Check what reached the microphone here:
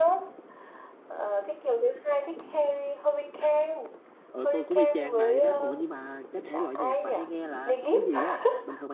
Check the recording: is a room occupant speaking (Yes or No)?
Yes